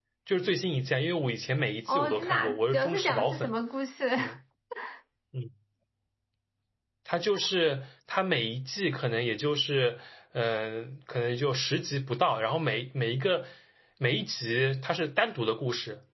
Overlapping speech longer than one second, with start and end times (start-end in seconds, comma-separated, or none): 1.9-3.6